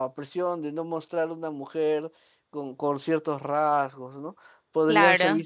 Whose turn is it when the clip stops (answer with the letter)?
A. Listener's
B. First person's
B